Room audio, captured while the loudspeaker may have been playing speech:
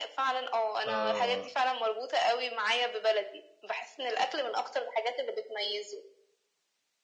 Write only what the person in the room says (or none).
آه.